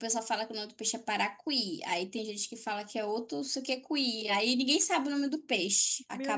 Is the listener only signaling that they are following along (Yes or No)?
No